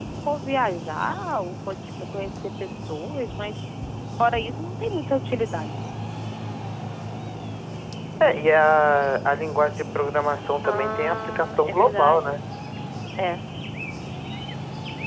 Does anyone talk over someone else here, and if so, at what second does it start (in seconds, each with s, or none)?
10.6 s